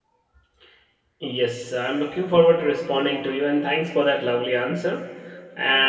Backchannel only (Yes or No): Yes